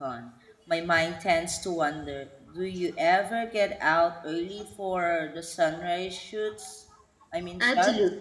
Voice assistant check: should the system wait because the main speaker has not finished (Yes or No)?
No